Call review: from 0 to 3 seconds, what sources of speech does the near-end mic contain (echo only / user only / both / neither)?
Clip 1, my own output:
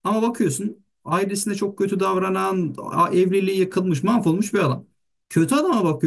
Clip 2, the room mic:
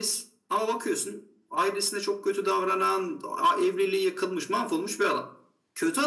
echo only